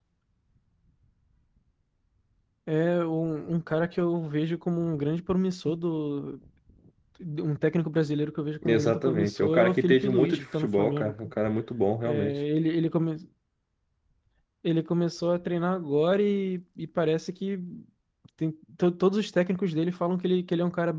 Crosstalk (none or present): present